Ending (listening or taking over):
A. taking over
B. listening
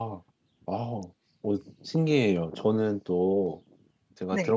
B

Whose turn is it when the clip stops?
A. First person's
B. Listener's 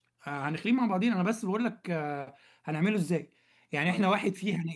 A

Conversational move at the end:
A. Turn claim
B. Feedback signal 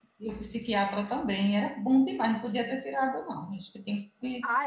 A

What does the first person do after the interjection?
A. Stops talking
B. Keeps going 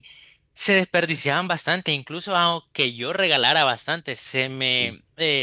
B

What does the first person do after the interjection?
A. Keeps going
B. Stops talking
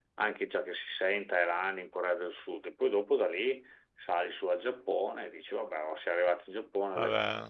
A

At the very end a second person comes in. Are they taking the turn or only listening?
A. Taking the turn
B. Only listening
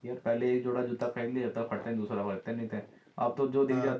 B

